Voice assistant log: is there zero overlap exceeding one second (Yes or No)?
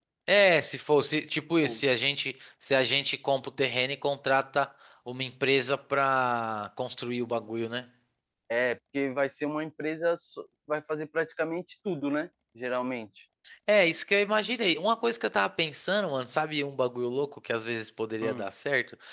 Yes